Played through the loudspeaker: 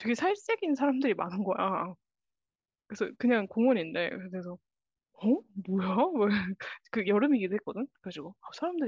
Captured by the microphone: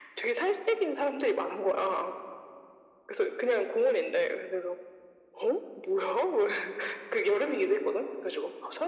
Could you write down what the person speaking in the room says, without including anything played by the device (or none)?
none